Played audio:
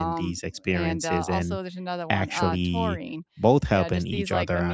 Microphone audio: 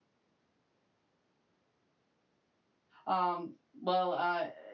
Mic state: user only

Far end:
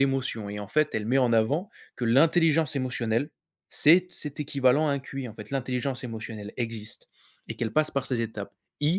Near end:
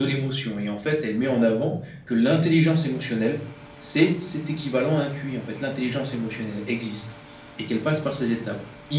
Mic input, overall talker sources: echo only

